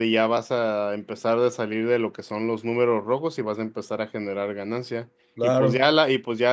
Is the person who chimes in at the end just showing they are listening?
Yes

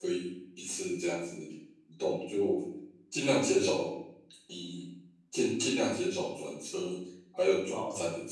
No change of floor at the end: No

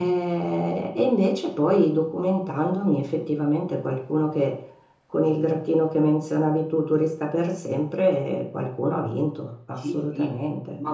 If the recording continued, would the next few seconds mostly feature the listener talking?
Yes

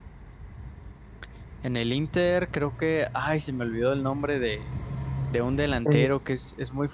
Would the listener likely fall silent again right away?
Yes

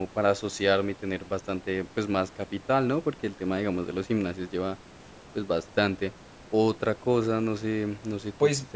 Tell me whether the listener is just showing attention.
Yes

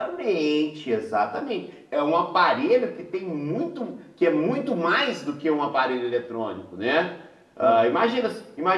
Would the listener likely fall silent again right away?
Yes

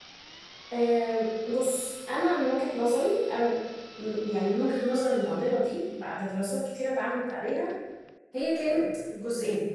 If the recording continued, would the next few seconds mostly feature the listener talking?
No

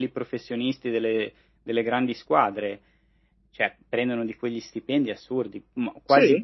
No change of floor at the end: Yes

